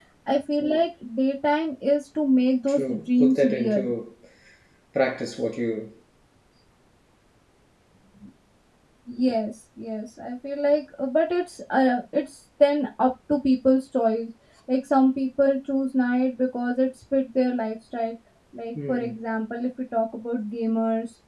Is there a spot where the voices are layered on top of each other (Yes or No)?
Yes